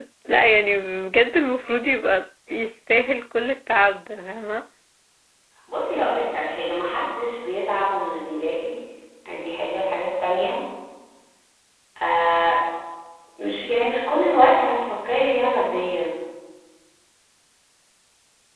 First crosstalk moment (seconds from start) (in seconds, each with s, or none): none